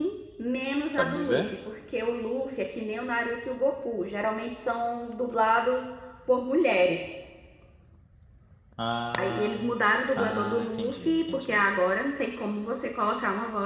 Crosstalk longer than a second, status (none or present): present